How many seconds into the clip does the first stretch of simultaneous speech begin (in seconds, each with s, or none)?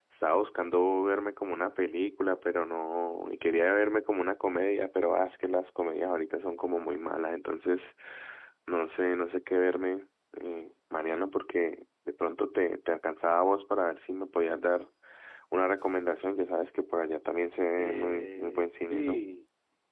17.8 s